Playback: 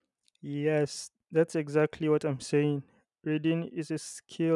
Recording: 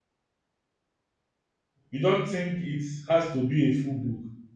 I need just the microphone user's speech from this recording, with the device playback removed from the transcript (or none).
you don't think it has to be a full book.